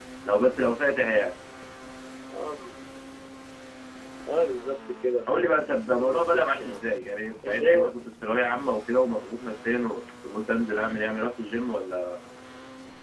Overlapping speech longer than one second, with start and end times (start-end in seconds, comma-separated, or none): 5.4-6.8